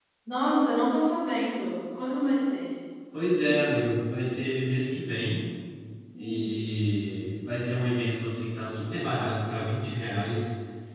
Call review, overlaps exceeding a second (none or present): none